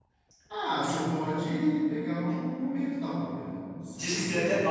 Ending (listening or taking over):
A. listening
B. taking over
B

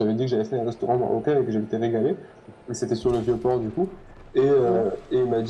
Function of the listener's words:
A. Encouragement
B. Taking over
A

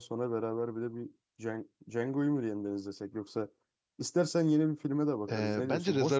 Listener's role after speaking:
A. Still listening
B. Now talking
B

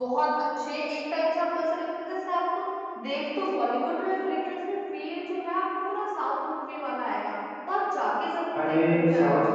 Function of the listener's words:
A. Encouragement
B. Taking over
B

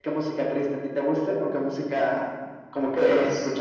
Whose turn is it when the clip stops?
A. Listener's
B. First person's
A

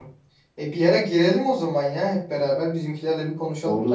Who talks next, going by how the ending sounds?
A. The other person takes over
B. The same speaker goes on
A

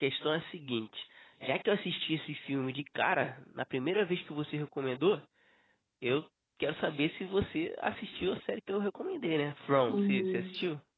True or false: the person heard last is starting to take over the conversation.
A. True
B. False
A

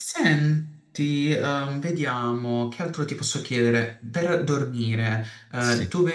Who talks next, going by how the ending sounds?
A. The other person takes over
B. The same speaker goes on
B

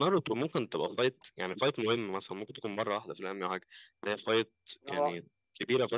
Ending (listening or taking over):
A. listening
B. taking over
A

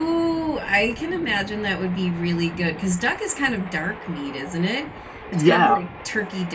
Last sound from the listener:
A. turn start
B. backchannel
B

